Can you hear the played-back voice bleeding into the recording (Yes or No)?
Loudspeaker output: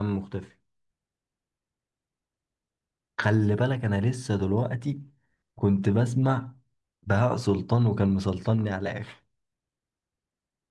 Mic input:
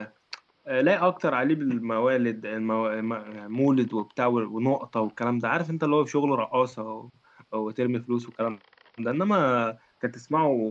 No